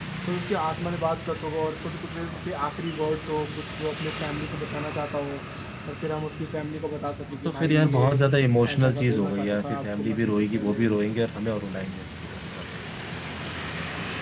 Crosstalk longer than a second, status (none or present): present